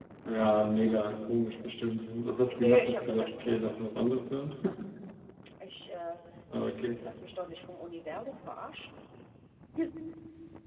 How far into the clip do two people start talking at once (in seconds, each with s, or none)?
2.5 s